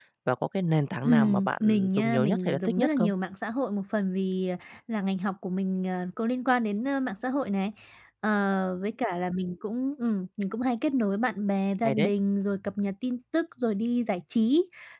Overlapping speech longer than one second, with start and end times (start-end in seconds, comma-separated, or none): 1.1-3.1